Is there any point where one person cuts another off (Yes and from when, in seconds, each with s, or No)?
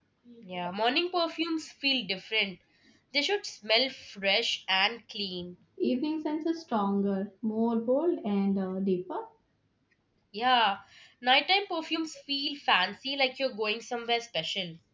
No